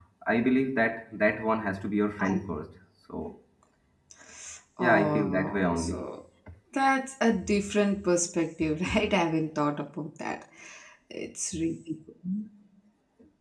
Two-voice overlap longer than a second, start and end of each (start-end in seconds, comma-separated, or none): 4.8-6.0